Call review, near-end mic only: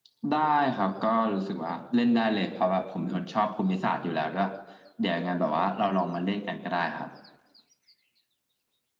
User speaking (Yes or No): No